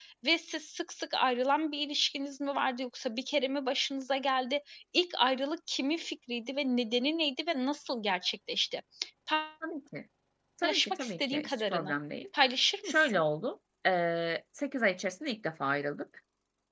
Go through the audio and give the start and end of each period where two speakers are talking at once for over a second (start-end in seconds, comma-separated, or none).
10.6-11.9